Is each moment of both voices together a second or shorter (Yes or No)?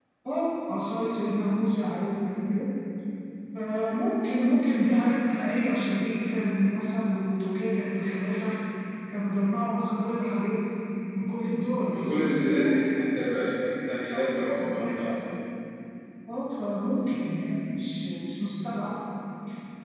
Yes